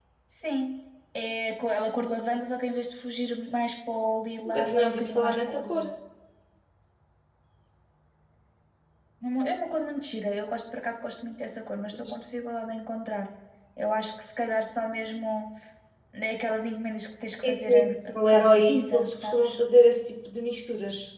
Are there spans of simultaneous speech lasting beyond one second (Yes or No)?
Yes